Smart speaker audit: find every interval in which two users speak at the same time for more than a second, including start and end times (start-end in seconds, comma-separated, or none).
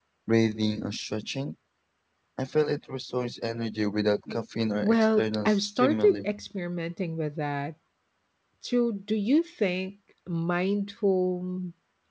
4.8-6.2